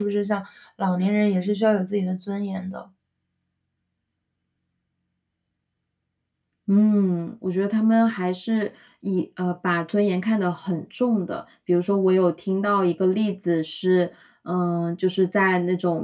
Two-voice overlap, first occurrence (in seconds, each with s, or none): none